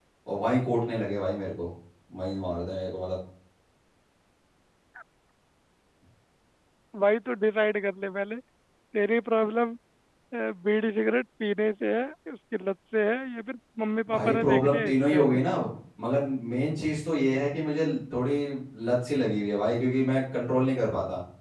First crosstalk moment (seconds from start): 14.1 s

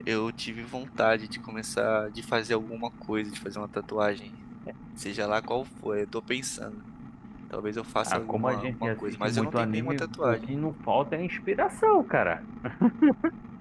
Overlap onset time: 8.0 s

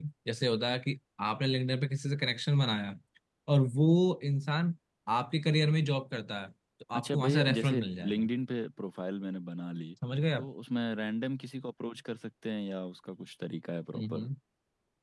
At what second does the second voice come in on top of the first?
6.9 s

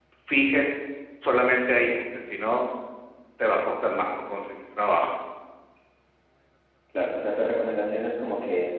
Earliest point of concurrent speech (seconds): none

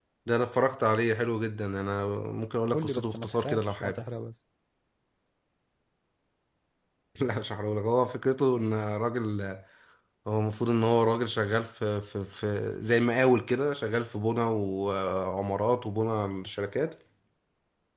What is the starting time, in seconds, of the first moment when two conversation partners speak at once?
2.7 s

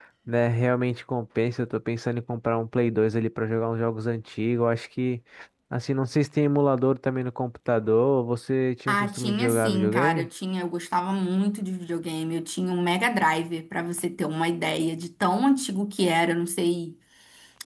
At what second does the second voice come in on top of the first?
8.9 s

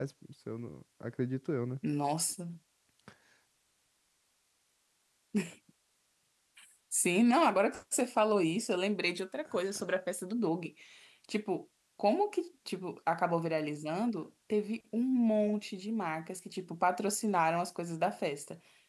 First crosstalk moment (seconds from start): none

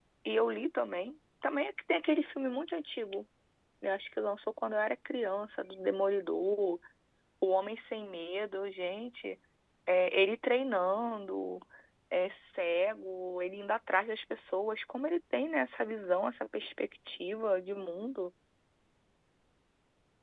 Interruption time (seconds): none

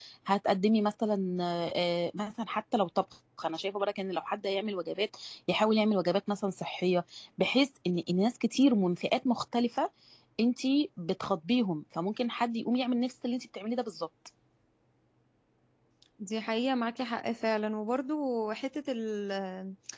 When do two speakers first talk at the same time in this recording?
none

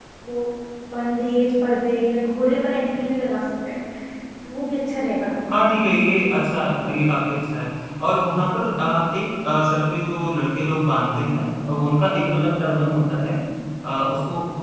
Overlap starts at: none

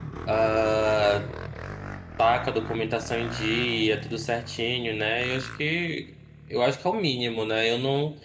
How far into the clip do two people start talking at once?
none

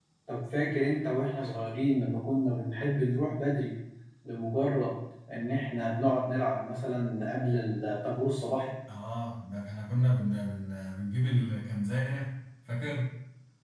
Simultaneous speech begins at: none

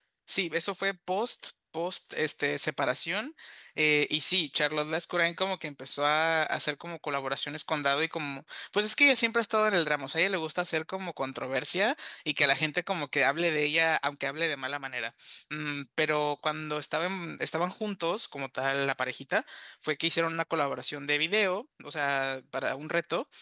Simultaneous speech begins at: none

